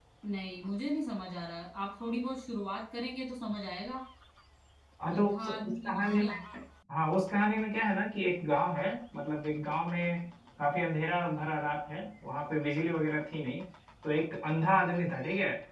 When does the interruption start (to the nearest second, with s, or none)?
5 s